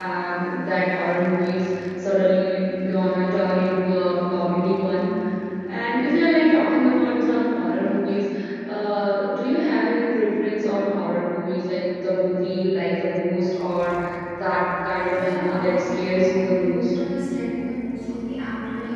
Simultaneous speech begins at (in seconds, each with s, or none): 15.1 s